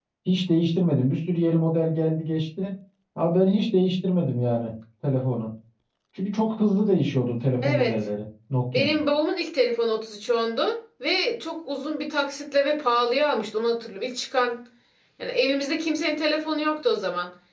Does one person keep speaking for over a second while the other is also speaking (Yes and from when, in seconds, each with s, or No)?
No